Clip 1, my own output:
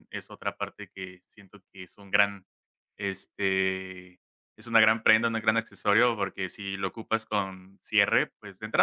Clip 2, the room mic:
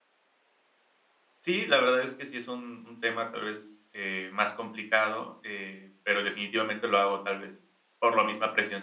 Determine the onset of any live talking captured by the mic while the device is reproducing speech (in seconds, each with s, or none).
1.4 s